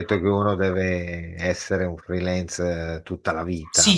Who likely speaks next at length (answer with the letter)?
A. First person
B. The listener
B